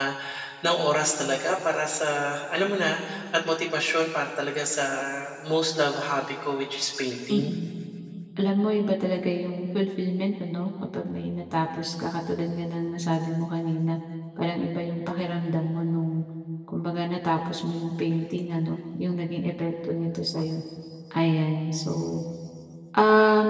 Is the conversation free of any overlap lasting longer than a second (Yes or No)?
Yes